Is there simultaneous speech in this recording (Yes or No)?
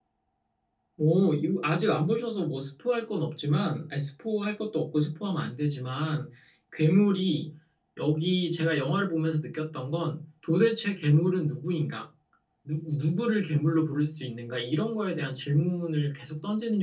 No